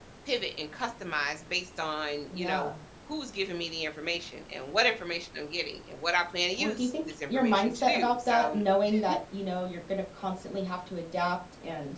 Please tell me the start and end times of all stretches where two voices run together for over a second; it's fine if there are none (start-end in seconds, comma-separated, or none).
6.6-8.6